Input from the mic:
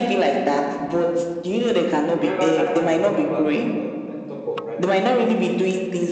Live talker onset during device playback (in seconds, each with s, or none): 2.1 s